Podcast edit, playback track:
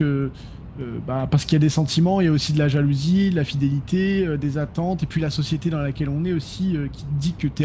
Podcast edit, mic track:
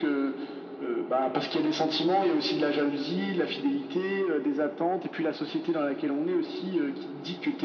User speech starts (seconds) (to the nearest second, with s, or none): none